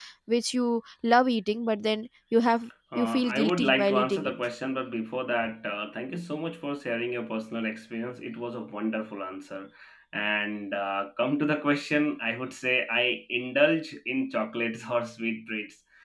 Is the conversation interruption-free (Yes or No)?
No